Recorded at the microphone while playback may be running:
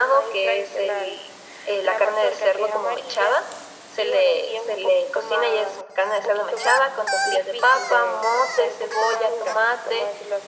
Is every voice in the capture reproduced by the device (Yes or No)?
Yes